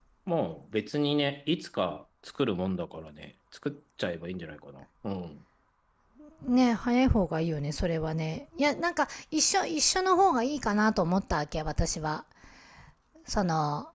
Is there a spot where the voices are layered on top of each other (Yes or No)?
No